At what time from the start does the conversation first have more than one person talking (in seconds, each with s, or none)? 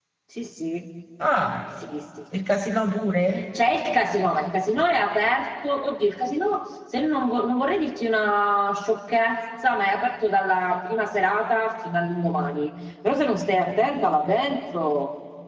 none